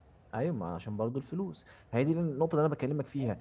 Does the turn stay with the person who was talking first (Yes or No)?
Yes